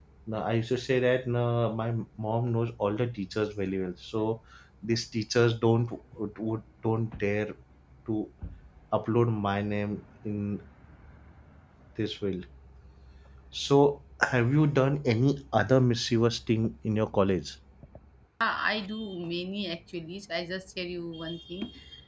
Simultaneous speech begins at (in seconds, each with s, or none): none